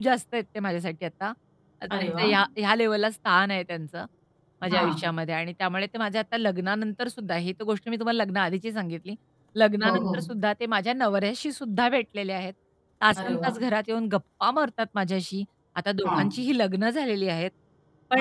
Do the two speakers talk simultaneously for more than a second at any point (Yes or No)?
No